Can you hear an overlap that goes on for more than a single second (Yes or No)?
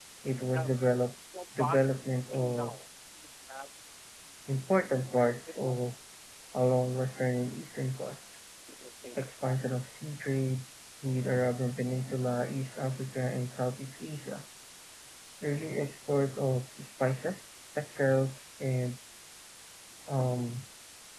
No